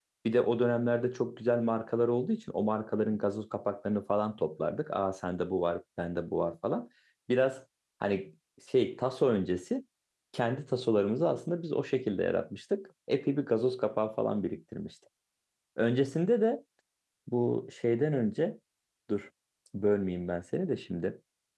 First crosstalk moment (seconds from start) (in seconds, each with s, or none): none